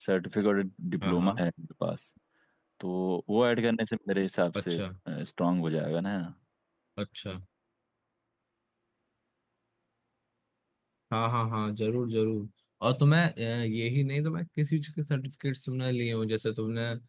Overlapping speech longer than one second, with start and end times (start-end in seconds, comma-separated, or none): none